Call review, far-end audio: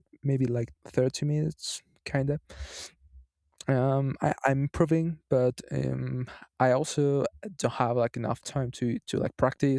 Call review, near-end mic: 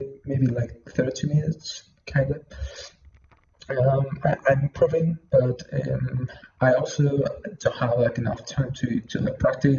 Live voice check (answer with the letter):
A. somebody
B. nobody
B